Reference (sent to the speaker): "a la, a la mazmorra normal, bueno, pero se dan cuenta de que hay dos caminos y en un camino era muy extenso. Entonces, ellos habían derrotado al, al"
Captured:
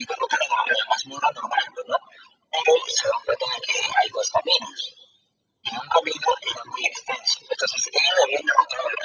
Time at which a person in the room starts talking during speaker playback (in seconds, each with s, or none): none